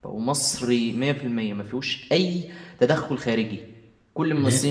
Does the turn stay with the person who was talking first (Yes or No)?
Yes